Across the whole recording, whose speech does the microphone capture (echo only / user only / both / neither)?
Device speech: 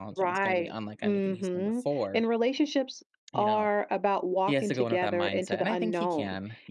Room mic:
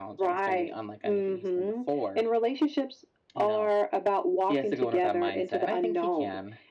echo only